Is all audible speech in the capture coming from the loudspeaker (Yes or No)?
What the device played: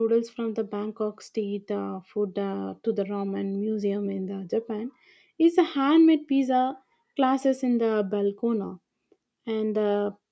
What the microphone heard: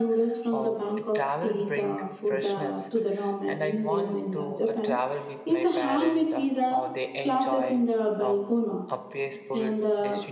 No